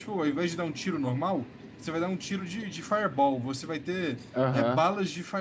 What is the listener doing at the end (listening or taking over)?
listening